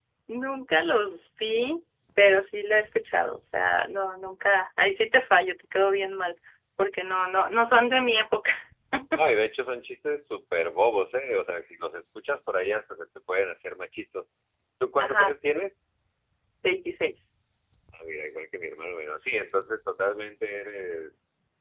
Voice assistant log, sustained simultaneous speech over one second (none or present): none